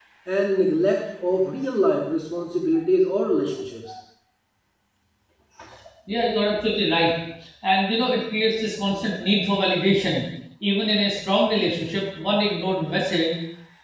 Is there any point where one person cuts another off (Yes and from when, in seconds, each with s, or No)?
No